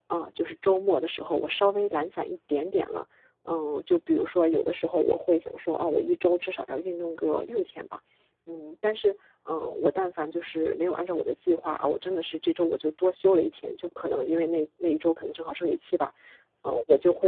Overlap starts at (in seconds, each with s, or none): none